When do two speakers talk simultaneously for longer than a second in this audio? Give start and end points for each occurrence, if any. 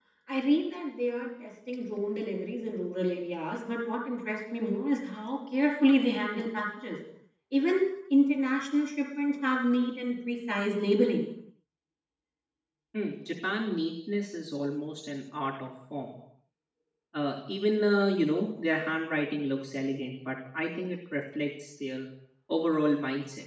none

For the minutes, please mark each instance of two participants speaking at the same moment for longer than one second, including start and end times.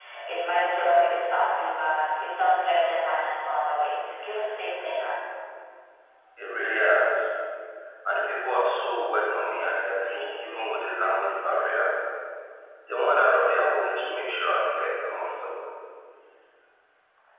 none

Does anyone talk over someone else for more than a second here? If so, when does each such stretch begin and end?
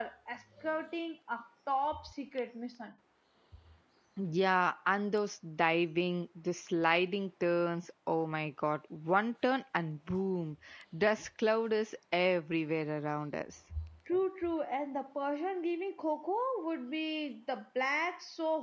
none

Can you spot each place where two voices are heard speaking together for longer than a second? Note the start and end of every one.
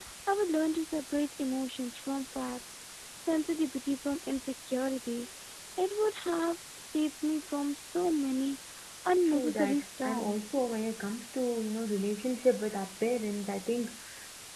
9.3-10.5

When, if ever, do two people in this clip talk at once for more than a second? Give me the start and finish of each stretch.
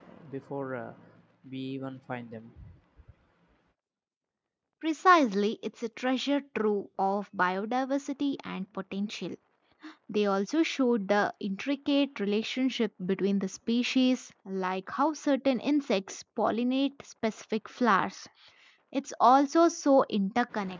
none

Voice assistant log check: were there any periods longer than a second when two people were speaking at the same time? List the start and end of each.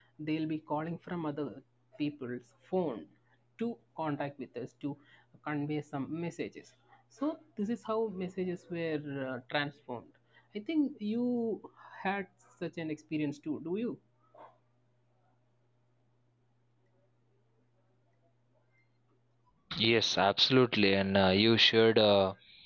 none

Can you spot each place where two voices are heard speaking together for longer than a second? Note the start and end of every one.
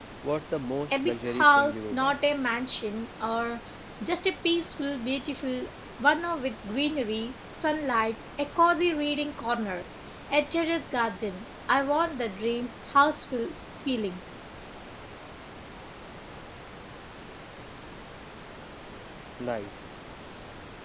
0.9-2.2

